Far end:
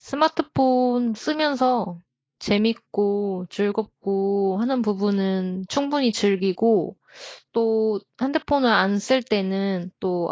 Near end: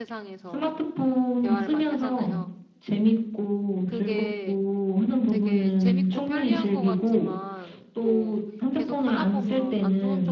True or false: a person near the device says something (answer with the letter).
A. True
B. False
A